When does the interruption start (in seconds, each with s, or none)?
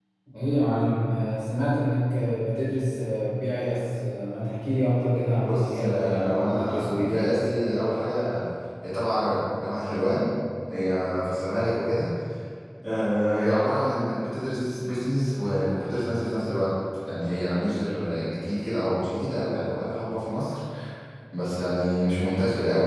5.4 s